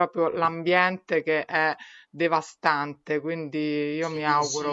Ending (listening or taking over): taking over